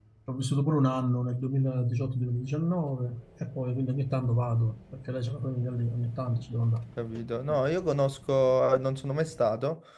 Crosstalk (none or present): none